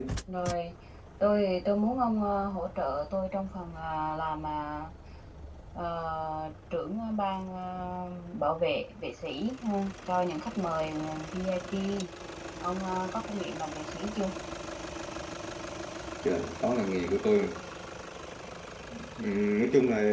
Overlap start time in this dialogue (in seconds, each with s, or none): none